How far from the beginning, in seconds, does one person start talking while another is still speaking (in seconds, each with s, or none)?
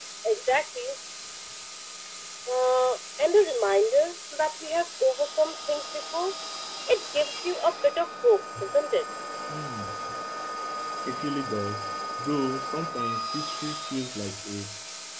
none